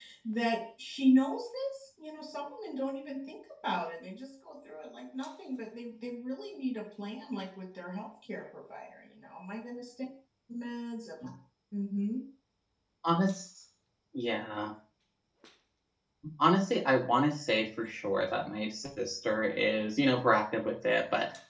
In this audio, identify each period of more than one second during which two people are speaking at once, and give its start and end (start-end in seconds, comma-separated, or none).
none